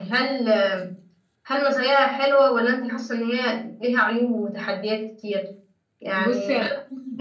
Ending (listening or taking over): listening